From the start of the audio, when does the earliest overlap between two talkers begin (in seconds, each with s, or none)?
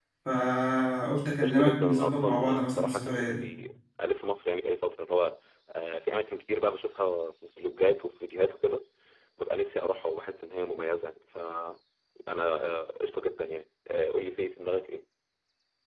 1.4 s